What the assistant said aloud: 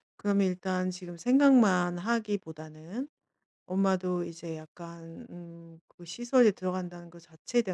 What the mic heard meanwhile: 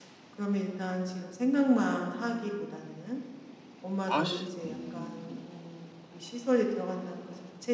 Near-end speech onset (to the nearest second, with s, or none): 4 s